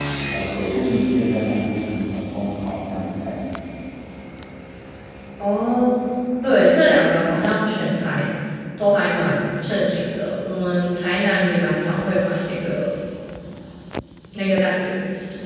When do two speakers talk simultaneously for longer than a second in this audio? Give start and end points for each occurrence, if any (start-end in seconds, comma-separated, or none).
none